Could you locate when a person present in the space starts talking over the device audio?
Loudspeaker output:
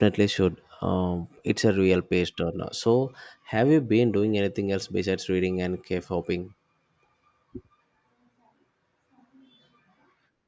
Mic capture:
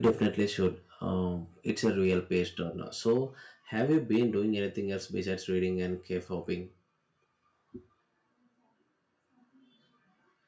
none

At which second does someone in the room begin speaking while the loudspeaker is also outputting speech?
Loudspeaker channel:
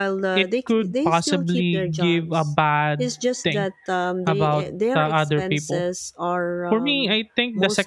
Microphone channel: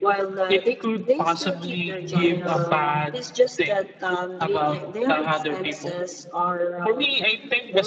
2 s

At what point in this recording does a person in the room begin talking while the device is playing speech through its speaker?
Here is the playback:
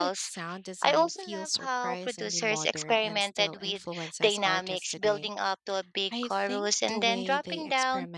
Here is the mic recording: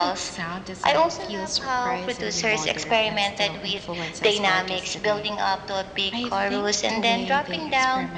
none

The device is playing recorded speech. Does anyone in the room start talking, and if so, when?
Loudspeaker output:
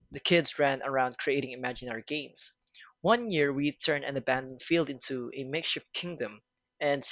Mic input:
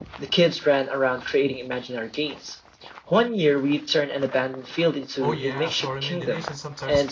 5 s

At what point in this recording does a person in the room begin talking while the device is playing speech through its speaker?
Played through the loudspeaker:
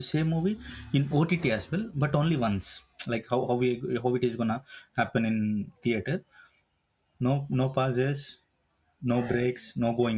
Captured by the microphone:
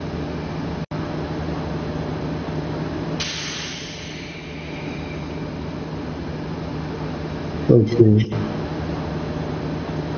8 s

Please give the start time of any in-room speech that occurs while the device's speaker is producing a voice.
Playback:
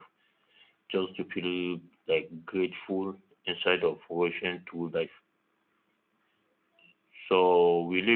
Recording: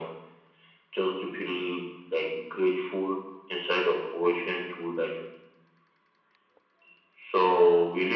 none

